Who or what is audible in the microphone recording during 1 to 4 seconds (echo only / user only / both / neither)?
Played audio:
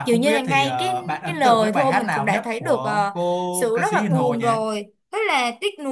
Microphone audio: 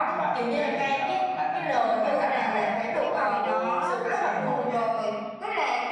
both